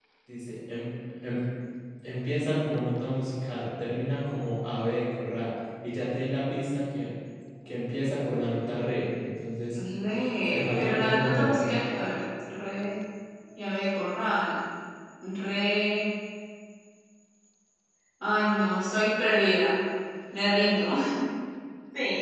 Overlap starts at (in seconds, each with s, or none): 10.5 s